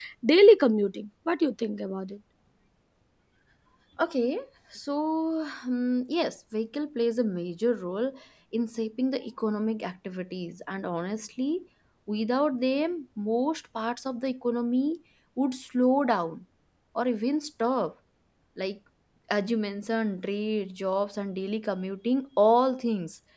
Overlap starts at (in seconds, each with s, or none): none